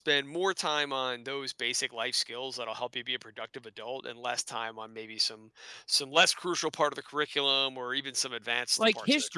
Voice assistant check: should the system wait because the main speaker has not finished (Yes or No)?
No